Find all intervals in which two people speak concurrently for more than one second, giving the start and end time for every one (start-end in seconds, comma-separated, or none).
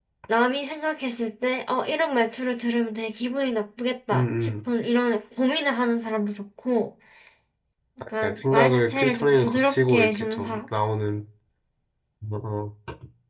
8.2-10.6